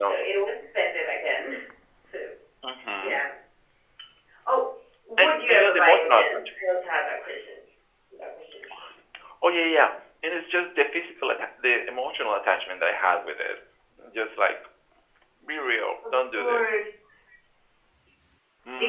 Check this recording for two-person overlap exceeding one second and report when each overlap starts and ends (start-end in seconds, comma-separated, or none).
5.2-6.4